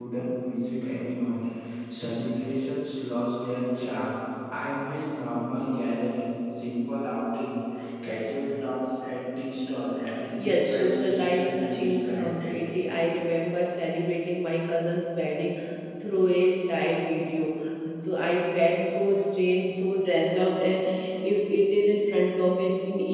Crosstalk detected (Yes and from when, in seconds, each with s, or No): Yes, from 10.4 s